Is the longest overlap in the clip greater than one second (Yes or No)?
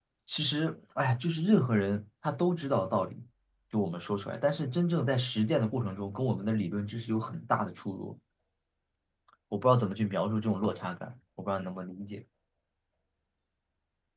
No